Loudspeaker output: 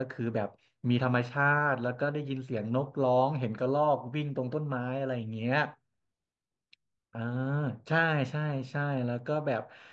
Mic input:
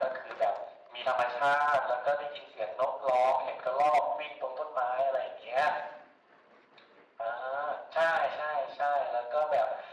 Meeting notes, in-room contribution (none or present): none